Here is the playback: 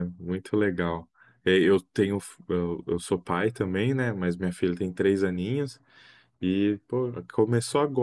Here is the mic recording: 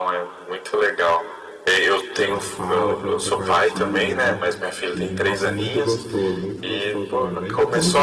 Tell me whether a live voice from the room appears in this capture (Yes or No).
Yes